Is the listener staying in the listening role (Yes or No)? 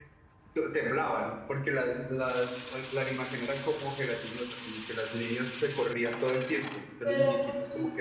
No